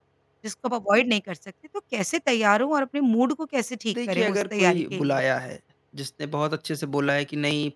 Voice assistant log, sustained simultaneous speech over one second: present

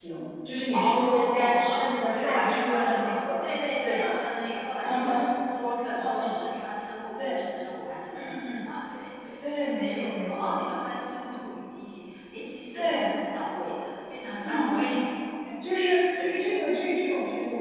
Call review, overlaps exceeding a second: present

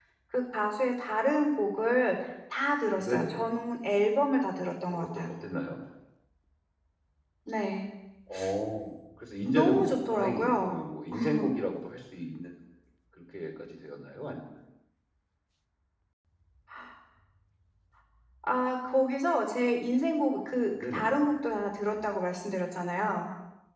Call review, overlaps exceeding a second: present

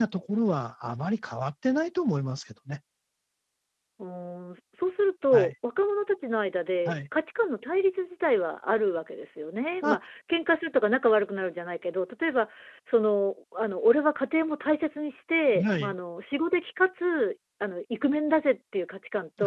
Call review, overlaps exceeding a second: none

